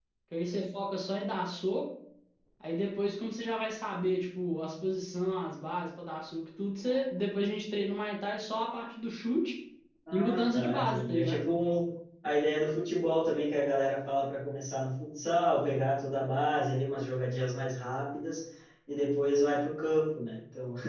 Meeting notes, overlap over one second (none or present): present